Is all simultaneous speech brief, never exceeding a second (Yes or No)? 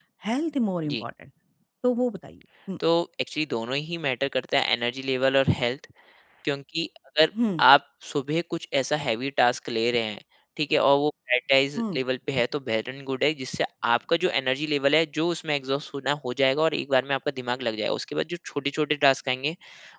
Yes